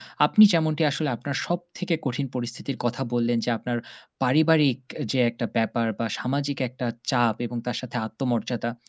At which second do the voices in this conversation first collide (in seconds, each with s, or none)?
none